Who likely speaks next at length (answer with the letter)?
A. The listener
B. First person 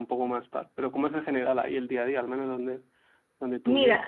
A